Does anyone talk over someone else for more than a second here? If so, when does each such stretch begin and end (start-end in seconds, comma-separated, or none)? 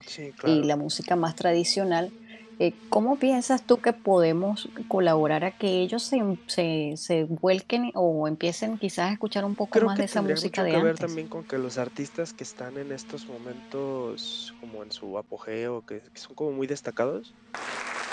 9.7-11.1